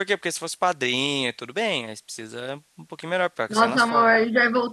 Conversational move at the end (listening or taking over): taking over